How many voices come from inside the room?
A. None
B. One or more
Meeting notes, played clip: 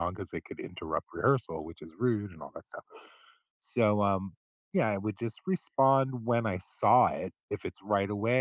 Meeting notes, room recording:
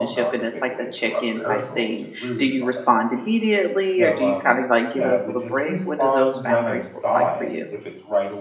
B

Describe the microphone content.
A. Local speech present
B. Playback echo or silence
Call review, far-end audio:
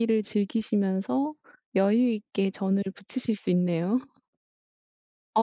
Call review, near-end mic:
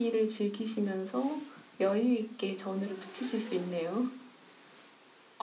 B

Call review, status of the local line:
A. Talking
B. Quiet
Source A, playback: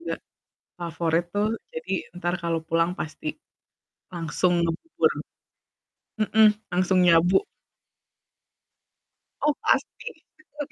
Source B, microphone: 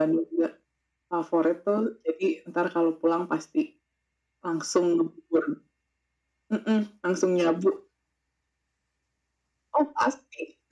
B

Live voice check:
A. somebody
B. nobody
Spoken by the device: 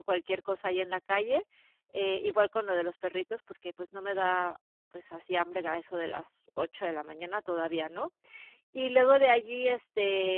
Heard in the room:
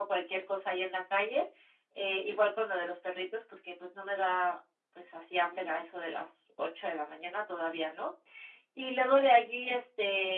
B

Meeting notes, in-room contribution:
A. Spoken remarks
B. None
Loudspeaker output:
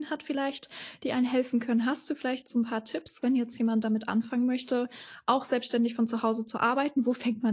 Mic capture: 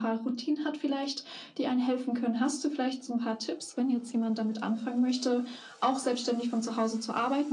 B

